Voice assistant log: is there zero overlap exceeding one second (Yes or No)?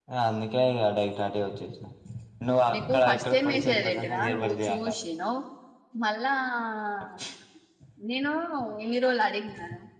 No